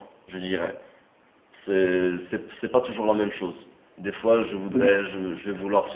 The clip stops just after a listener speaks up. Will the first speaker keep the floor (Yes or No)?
Yes